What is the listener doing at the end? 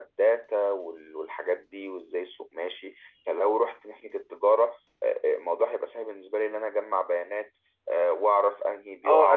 taking over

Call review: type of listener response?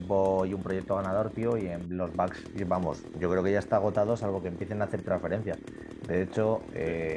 listening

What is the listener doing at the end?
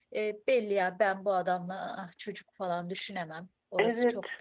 taking over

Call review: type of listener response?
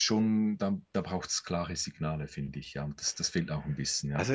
taking over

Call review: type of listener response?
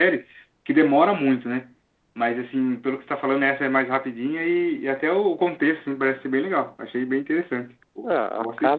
taking over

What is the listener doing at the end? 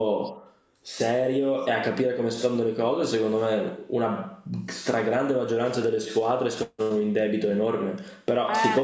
listening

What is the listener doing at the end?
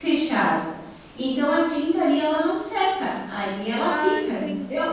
taking over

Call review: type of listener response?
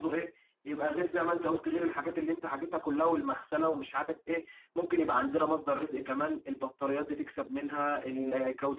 taking over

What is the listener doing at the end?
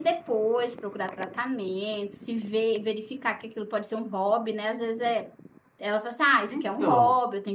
listening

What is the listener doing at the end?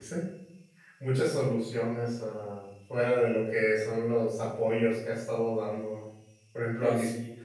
listening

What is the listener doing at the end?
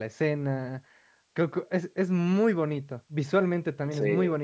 listening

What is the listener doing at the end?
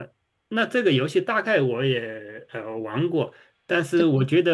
listening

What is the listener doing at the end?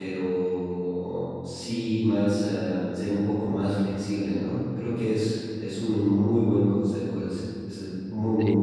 taking over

